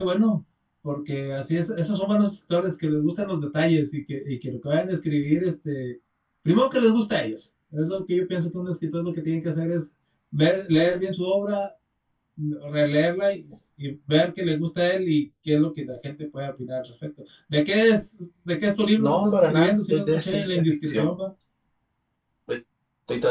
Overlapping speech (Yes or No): Yes